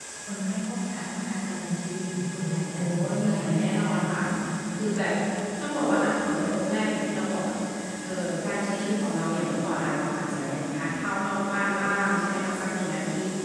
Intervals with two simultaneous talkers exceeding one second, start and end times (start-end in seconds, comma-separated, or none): 2.7-4.0